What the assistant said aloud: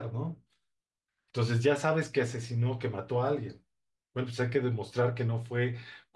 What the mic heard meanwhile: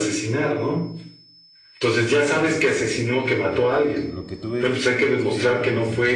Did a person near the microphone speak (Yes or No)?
Yes